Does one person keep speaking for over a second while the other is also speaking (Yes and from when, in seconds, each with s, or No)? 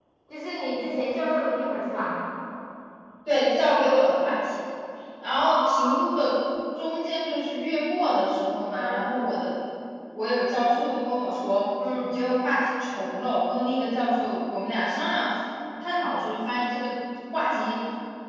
No